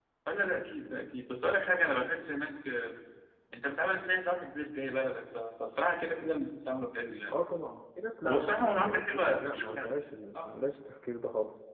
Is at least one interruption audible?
Yes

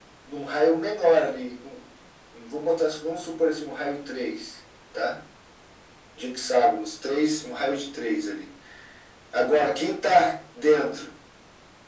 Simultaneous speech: No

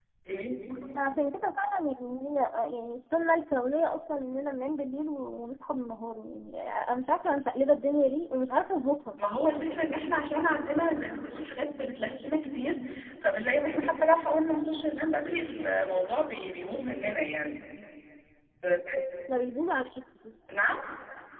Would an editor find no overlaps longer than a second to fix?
Yes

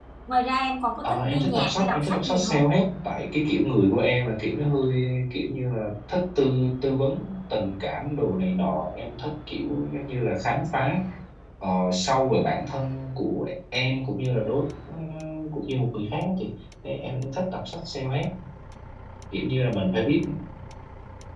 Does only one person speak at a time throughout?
No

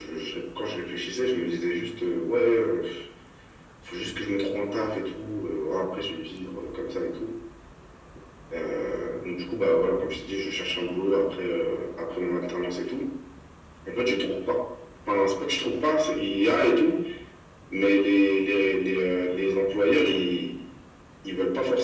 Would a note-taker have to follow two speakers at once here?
No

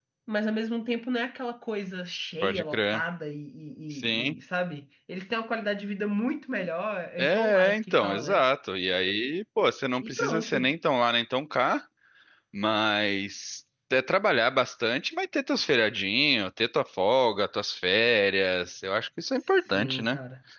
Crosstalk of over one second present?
Yes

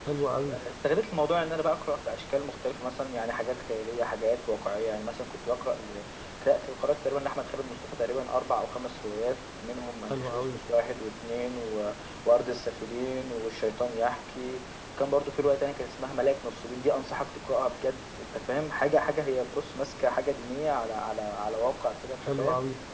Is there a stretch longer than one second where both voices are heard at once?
No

